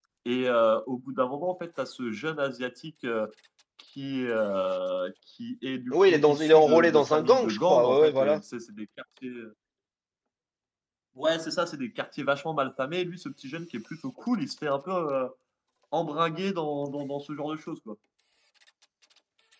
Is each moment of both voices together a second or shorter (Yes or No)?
No